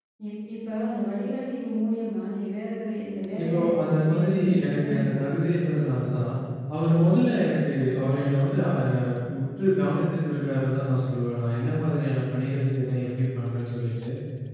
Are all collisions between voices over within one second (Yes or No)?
No